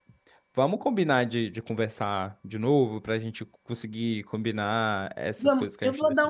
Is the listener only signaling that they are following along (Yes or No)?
No